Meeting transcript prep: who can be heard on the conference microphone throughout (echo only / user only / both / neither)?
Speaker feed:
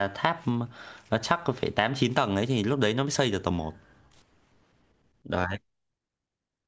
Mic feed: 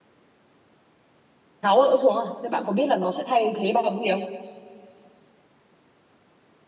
user only